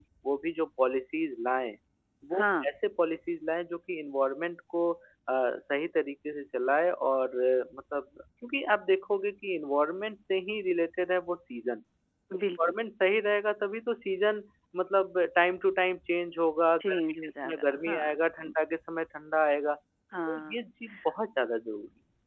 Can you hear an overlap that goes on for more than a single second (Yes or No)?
Yes